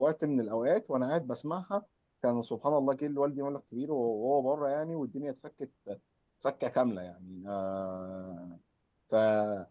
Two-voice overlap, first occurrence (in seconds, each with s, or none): none